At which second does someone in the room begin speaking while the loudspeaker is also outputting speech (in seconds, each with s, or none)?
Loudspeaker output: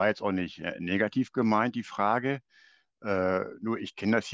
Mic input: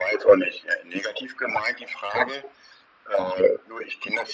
none